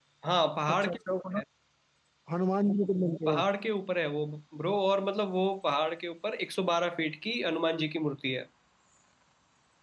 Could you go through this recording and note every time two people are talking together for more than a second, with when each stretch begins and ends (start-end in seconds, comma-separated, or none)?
none